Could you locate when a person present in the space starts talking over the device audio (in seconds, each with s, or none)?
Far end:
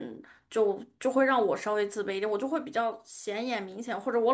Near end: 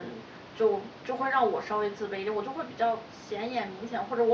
none